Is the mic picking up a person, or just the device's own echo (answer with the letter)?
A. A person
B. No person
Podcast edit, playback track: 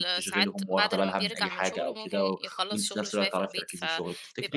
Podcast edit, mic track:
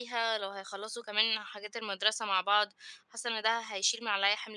A